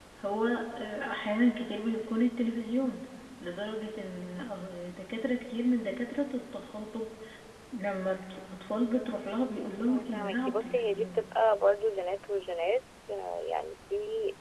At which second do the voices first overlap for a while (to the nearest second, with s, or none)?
10 s